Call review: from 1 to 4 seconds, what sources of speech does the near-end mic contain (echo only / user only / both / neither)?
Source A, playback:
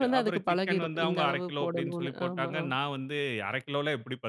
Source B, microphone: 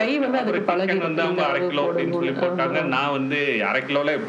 echo only